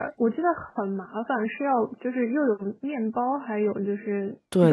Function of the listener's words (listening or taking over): taking over